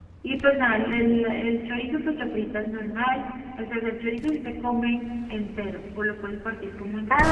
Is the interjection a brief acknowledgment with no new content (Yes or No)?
No